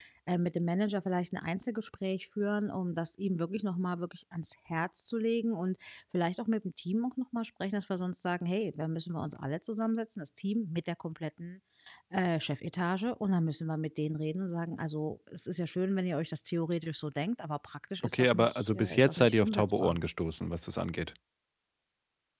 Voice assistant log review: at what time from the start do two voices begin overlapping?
18.0 s

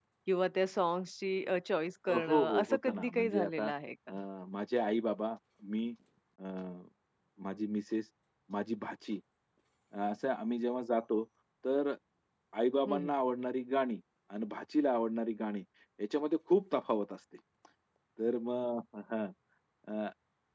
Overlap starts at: 2.1 s

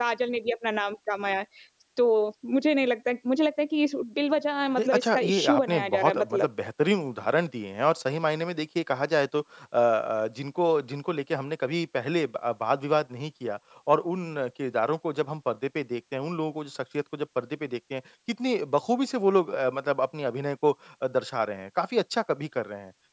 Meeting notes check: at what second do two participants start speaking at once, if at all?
4.8 s

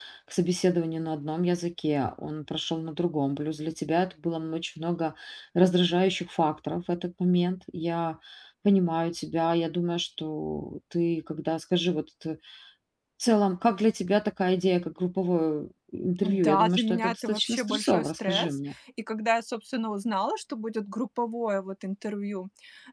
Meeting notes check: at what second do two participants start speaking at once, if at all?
16.2 s

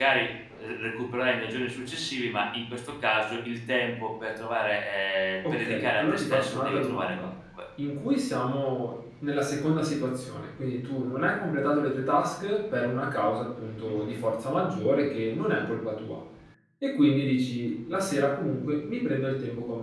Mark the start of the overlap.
5.5 s

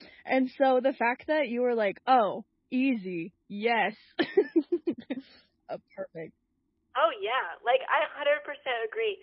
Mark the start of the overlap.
none

